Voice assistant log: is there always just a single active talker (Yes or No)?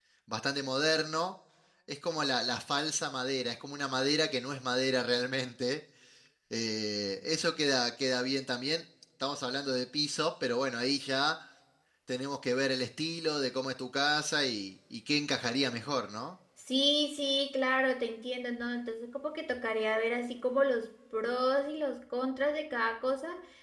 Yes